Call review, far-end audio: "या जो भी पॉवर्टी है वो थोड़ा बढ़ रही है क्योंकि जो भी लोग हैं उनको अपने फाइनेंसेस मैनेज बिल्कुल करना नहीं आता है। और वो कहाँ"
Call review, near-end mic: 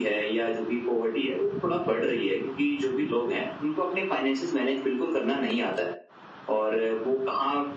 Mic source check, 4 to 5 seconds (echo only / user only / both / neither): echo only